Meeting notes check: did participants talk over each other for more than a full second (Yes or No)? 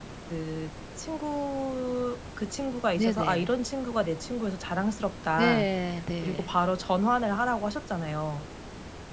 No